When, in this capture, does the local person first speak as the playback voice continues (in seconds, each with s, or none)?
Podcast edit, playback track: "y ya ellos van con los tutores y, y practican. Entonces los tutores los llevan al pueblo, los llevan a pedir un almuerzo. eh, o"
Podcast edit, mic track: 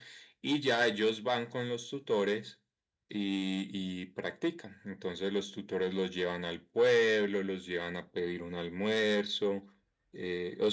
none